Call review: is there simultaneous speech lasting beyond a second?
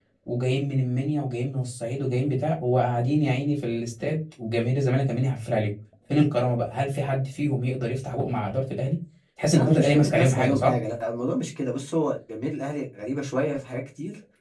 Yes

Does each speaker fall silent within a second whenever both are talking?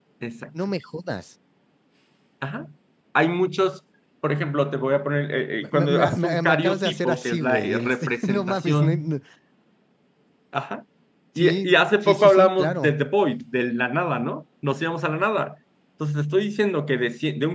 No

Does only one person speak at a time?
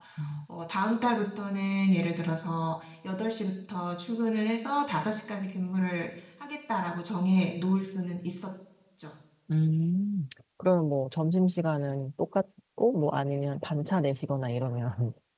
Yes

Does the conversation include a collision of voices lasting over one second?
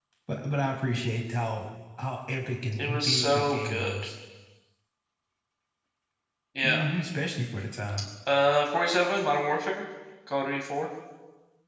Yes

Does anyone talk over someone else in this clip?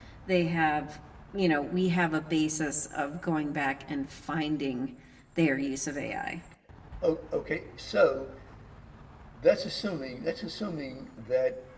No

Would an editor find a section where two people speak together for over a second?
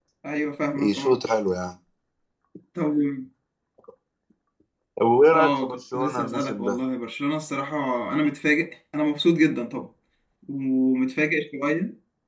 Yes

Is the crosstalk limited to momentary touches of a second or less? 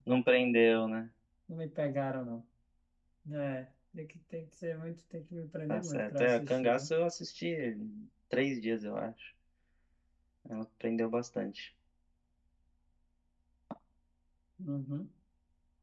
No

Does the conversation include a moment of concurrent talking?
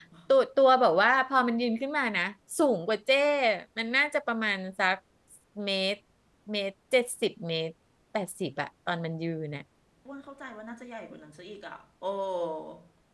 No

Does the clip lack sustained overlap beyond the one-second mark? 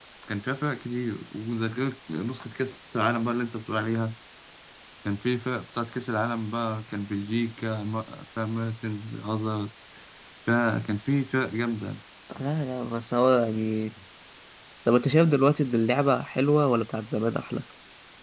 Yes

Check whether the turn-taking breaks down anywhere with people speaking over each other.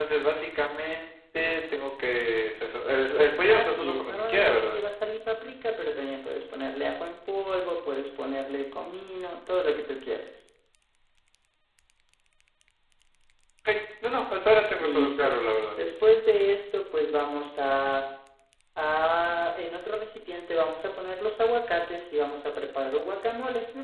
Yes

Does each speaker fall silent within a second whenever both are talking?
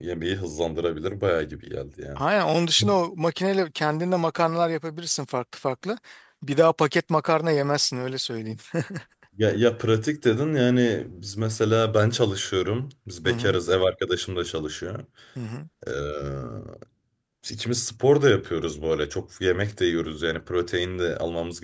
Yes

